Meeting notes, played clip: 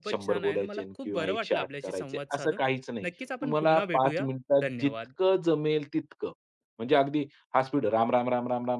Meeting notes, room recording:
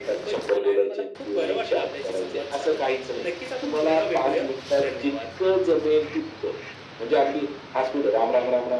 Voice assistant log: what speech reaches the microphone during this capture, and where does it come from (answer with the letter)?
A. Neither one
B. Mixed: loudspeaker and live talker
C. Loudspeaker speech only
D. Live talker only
C